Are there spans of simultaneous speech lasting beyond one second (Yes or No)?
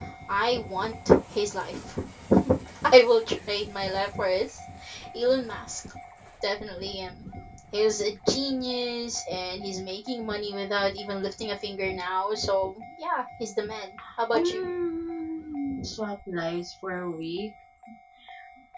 No